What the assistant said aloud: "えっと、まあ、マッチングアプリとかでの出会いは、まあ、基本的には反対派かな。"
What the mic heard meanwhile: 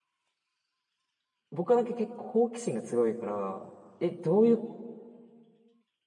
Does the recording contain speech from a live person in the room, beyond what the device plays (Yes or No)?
Yes